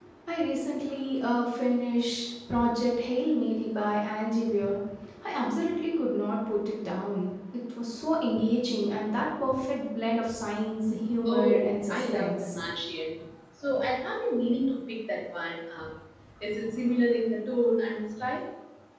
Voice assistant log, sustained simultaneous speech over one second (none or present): present